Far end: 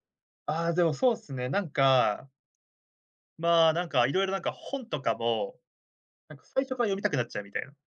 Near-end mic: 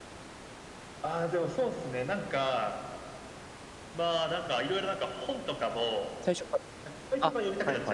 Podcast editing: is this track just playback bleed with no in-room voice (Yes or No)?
No